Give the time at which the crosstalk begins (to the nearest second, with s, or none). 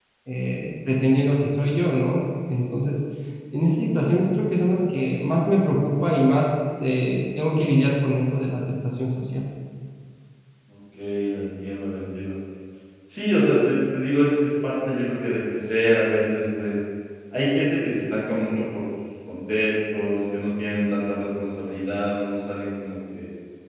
none